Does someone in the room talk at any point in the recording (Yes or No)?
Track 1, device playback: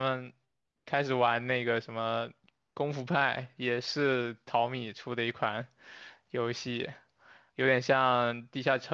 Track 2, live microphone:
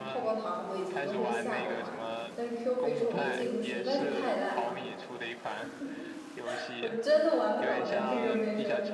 Yes